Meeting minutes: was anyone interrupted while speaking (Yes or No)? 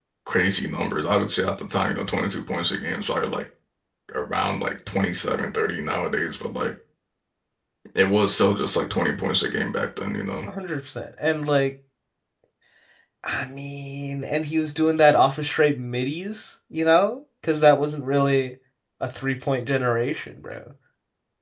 No